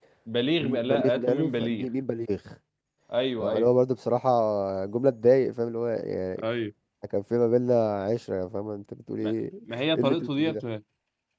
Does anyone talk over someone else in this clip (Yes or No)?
Yes